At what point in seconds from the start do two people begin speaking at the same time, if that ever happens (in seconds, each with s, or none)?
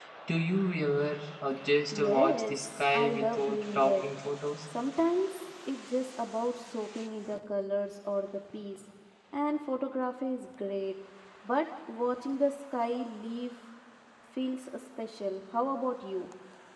1.9 s